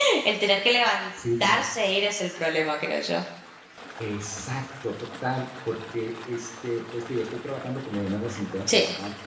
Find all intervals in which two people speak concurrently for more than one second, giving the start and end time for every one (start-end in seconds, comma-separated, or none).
none